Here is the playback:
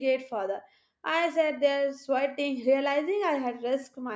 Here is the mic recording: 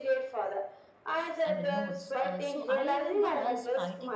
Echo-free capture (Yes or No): No